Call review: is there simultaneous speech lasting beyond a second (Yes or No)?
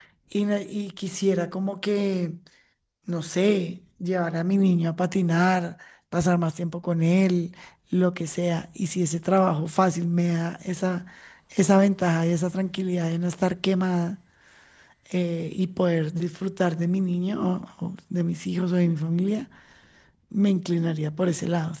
No